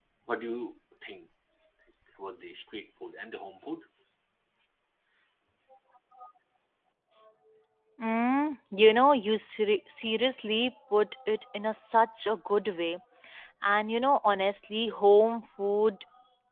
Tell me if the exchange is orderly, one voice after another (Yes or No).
Yes